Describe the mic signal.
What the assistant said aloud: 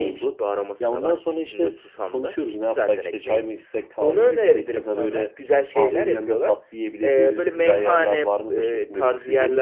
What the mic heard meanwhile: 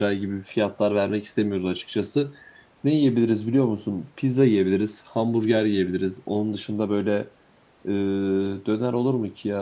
user only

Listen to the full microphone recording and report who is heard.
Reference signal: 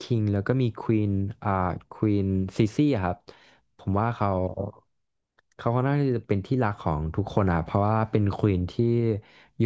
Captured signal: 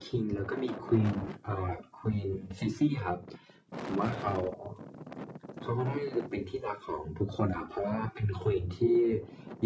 echo only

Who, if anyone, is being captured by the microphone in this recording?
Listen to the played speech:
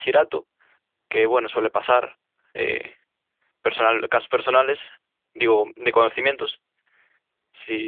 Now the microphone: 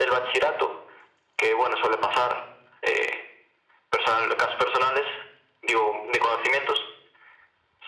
echo only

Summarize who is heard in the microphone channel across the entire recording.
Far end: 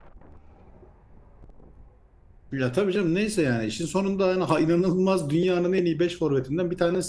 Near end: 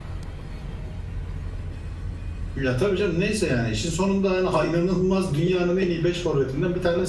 echo only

